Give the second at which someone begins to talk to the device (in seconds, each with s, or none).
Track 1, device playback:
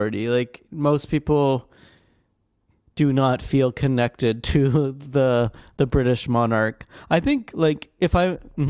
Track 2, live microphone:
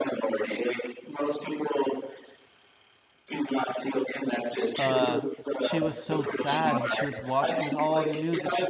4.8 s